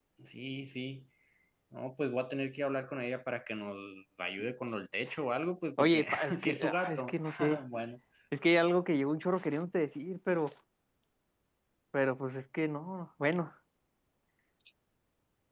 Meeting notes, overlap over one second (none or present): present